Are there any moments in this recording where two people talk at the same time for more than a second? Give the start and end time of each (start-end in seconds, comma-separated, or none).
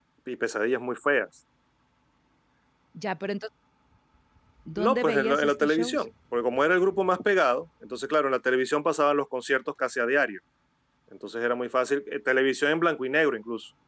4.8-6.0